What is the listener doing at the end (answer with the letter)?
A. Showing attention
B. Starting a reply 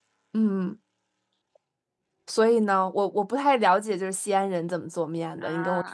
B